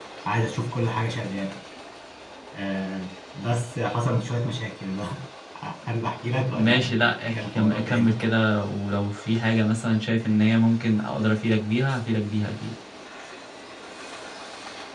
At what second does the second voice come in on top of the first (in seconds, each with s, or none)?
6.5 s